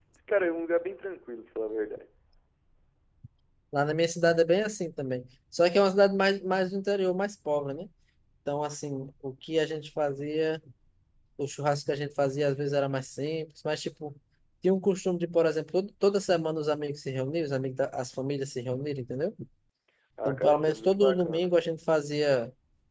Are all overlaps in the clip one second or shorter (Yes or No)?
No